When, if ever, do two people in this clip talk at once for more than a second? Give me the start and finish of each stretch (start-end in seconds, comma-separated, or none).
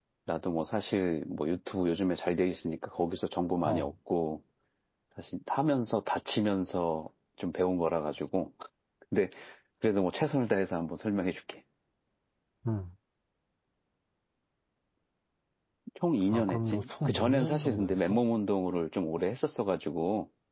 16.3-18.2